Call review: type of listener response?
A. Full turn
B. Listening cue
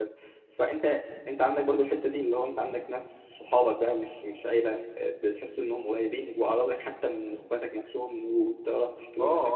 A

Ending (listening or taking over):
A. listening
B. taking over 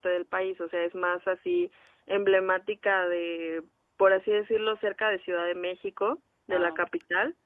A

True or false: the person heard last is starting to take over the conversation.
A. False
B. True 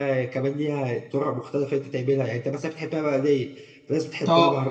A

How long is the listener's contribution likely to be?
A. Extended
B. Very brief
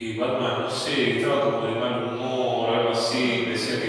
B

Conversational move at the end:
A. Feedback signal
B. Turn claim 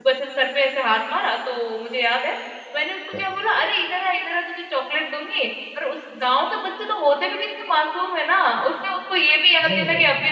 A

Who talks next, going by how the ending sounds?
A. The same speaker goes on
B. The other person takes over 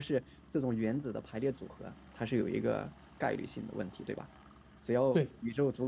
A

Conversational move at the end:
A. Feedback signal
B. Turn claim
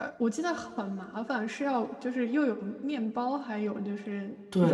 B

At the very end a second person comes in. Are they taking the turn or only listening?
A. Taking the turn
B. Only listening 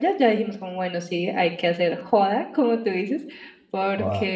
B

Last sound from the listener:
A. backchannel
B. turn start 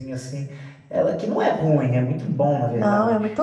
B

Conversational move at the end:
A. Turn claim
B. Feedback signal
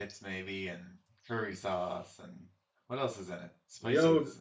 A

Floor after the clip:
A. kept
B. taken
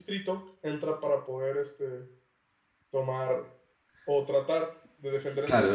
B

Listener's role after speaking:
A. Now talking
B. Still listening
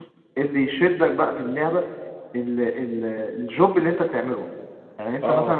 B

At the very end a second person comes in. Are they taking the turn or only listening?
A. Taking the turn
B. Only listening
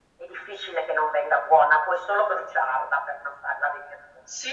A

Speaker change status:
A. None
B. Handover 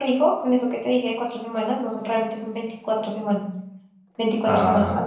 A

